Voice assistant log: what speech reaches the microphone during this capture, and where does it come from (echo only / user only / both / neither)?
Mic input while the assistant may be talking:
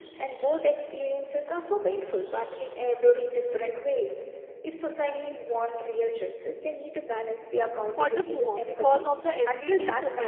both